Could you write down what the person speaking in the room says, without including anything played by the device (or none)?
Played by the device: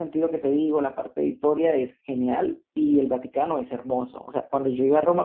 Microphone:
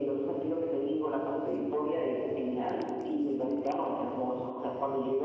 none